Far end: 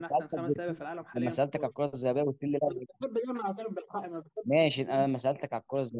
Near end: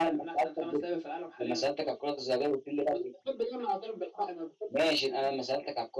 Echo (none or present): present